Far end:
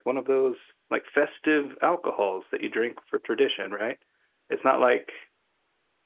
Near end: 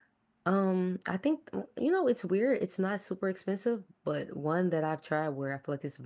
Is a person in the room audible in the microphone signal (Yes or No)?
Yes